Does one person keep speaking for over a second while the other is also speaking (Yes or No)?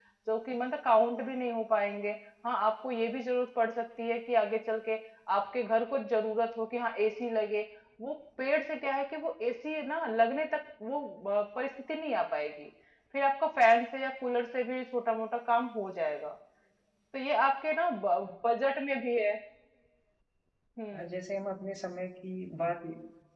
No